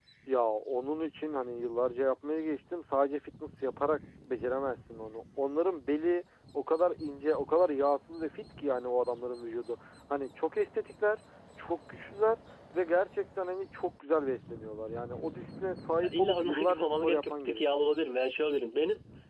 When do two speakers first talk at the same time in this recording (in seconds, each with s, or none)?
16.0 s